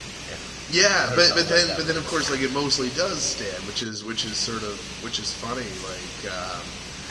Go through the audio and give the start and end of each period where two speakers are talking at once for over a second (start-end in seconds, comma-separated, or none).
1.0-2.4